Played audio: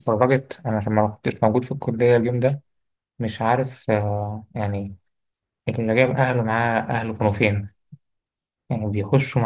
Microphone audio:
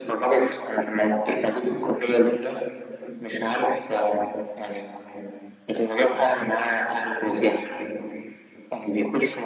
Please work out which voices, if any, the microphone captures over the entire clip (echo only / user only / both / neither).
echo only